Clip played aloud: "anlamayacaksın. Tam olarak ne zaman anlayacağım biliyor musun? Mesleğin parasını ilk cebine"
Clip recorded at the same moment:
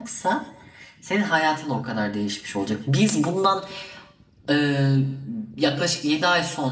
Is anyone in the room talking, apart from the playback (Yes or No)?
Yes